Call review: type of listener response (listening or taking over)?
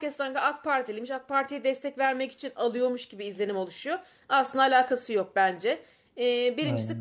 listening